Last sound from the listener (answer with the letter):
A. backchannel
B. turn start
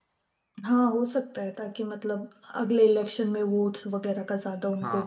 B